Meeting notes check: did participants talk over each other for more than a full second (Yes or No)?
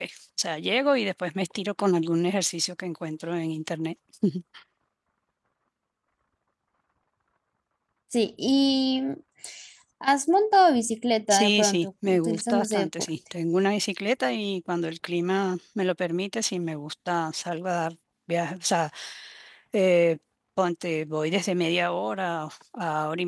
Yes